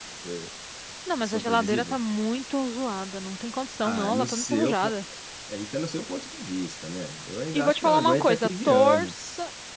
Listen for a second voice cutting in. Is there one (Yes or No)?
Yes